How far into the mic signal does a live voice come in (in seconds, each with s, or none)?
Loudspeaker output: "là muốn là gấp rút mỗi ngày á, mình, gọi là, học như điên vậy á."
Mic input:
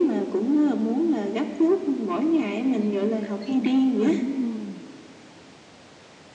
2.7 s